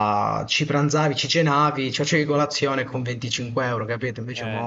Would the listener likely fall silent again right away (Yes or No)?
No